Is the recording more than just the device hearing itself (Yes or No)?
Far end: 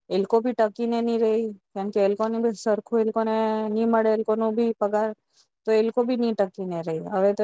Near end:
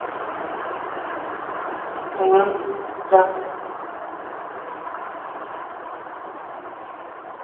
Yes